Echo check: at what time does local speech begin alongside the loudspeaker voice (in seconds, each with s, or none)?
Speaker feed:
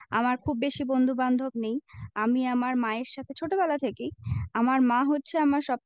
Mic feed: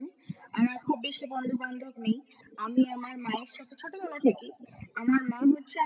none